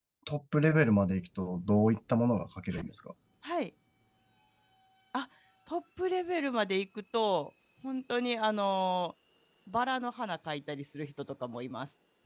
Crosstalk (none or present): none